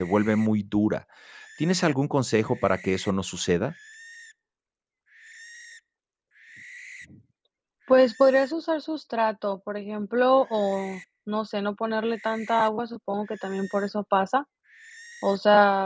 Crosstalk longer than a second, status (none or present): none